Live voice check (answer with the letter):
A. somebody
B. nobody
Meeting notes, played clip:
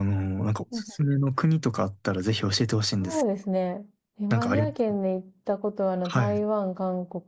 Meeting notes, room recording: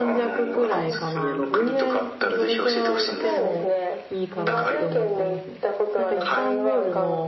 A